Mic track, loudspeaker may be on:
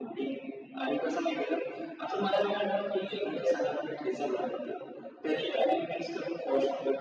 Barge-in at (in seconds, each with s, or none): none